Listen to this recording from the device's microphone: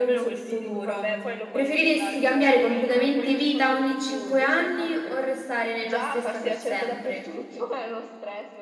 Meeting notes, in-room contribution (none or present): none